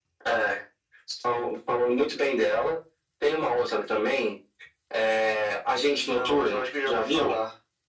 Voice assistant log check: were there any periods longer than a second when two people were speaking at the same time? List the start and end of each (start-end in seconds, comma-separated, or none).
5.8-7.4